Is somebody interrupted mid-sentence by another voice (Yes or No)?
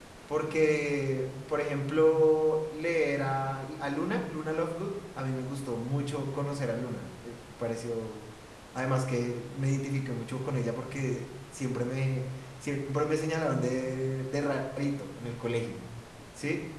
No